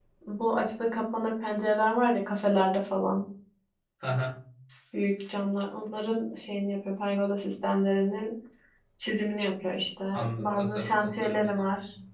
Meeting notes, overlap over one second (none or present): present